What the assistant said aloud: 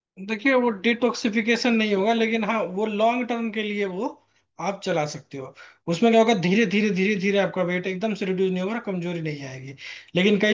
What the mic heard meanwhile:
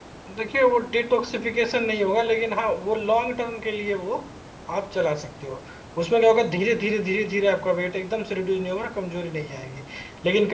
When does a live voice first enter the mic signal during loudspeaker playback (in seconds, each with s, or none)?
none